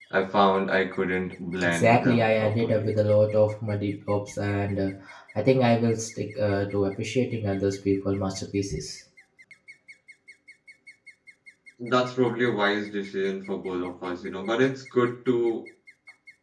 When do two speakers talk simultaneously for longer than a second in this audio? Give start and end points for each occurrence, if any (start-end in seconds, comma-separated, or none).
1.6-2.9